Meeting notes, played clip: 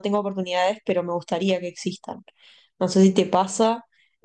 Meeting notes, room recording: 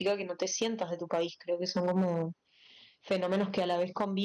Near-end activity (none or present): present